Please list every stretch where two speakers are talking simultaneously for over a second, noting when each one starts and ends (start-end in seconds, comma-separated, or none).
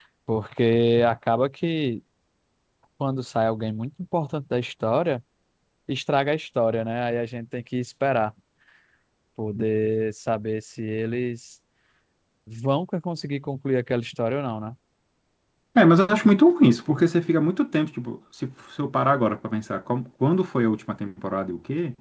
none